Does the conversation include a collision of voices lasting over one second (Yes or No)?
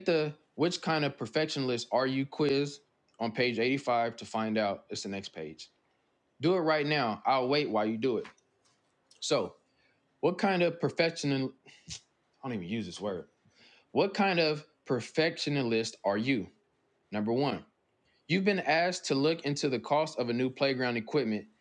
No